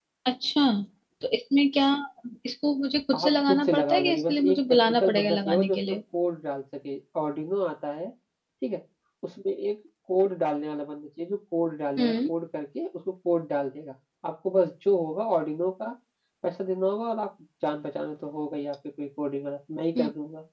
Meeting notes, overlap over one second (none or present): present